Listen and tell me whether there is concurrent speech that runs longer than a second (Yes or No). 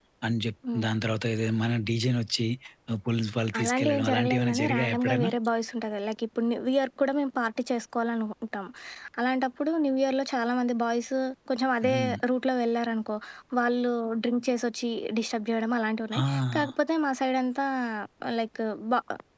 Yes